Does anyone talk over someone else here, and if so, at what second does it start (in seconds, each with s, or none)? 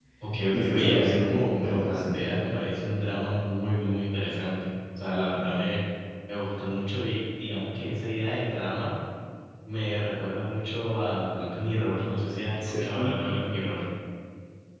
0.5 s